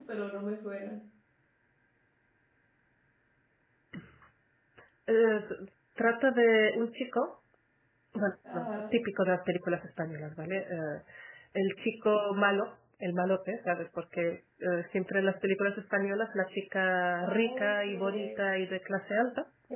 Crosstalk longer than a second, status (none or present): present